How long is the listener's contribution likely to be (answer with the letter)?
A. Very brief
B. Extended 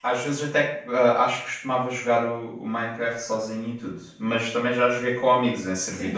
B